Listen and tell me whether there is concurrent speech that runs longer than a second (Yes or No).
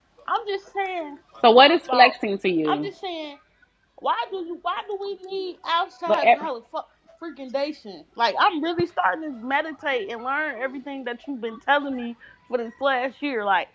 No